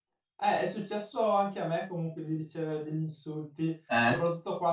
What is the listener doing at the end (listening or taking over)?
listening